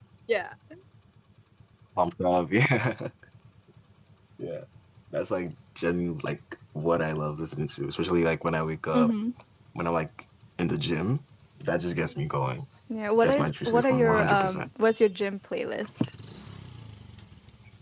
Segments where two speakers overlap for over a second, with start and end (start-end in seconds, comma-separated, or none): 13.2-14.7